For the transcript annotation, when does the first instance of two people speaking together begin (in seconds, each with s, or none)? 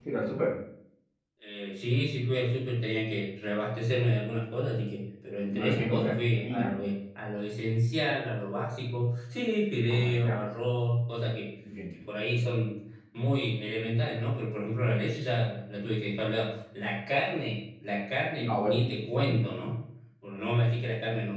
5.5 s